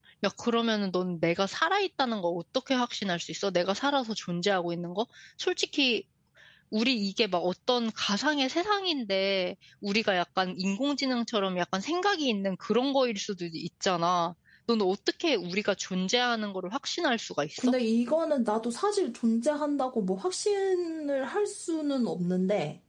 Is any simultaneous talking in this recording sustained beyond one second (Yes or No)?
No